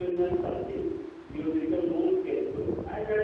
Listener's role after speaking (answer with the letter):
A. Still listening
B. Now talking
A